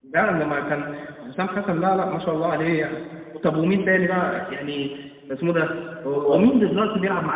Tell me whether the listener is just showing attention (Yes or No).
Yes